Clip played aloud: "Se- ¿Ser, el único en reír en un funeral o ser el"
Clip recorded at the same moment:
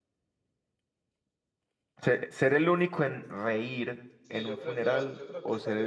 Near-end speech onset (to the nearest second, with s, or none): 4 s